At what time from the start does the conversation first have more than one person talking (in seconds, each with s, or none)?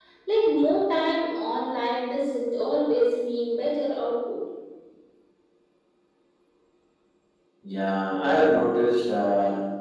none